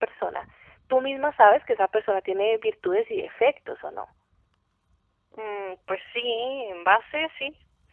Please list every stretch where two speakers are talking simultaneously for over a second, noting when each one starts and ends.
none

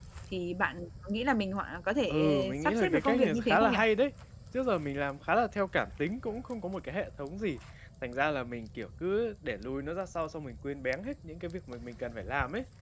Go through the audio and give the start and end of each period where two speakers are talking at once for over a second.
2.1-3.8

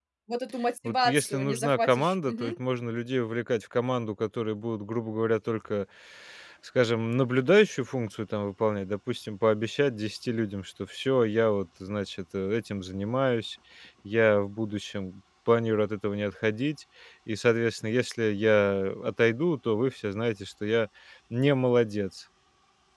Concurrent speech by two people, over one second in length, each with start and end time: 0.8-2.6

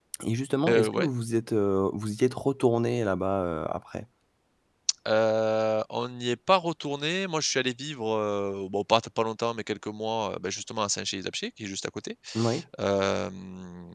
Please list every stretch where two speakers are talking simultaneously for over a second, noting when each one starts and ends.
none

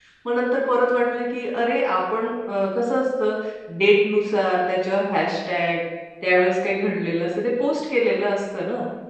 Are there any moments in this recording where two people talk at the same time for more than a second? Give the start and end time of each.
none

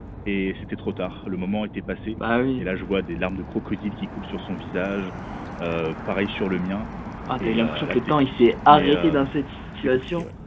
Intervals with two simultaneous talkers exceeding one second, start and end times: 7.4-9.2

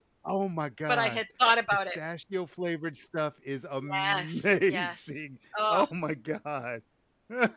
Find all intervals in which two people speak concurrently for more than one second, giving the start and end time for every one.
3.9-5.1

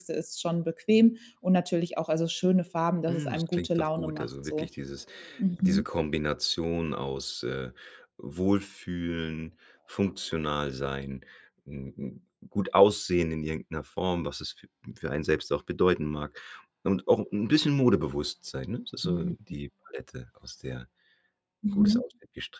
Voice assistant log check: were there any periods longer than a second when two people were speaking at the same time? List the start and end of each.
3.1-4.7

